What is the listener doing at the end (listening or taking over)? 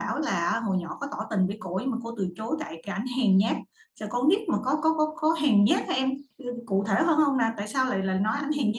taking over